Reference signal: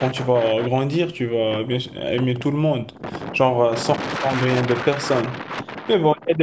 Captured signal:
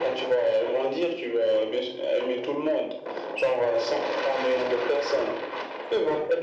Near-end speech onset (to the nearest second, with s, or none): none